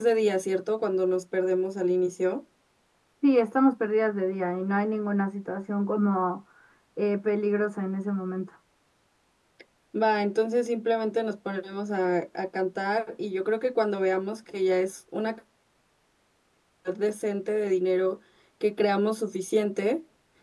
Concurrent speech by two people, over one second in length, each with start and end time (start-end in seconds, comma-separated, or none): none